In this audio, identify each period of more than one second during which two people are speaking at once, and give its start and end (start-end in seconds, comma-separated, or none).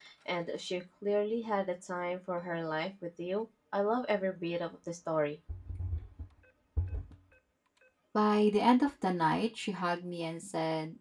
none